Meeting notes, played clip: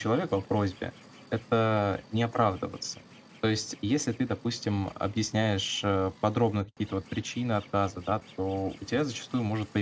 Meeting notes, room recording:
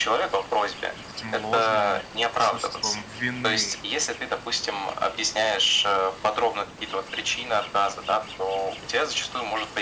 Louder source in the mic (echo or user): echo